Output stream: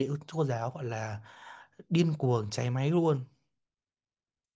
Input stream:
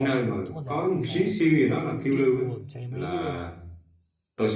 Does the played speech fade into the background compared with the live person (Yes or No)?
Yes